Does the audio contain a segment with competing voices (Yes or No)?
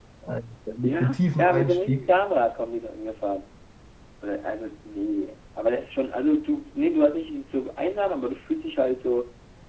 Yes